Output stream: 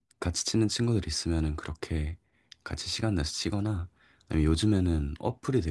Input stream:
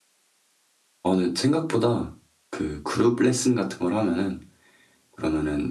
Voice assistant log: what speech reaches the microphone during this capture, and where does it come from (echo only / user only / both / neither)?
user only